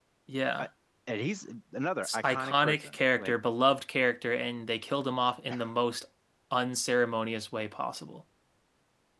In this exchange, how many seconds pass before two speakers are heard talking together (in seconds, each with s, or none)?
2.0 s